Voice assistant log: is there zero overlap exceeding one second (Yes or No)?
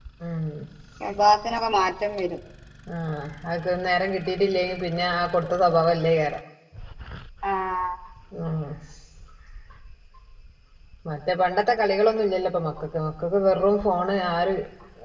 Yes